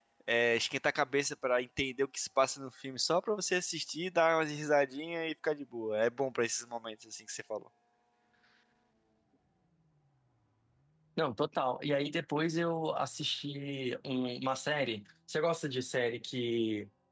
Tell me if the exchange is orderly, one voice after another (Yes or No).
Yes